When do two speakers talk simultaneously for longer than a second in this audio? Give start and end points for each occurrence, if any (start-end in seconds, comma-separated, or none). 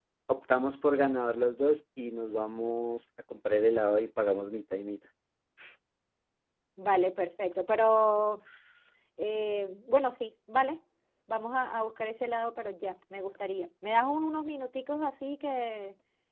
none